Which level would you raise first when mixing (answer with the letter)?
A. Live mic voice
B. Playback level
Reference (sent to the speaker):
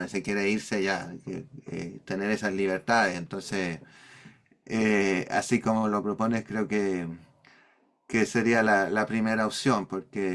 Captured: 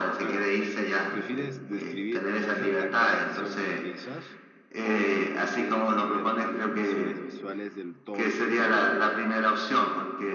A